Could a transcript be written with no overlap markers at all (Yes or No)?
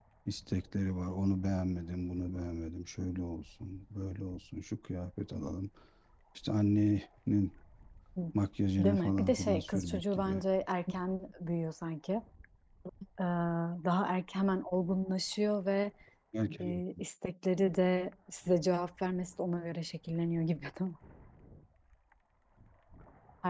No